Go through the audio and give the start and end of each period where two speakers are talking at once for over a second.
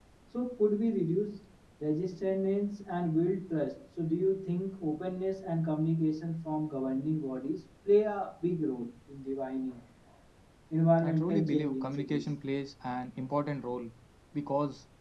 11.0-12.3

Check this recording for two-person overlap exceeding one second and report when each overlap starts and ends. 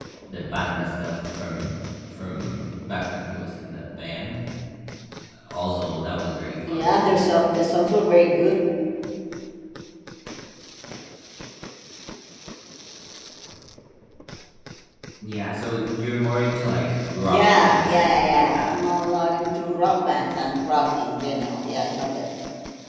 17.2-18.7

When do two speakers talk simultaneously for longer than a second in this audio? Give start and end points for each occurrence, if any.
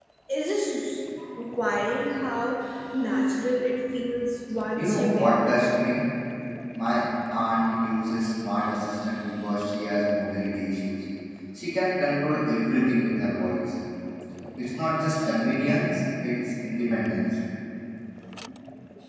4.7-6.0

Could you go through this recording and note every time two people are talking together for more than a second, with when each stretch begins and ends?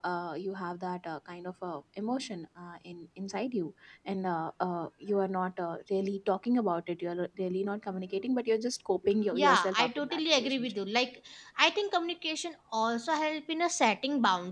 9.4-10.7

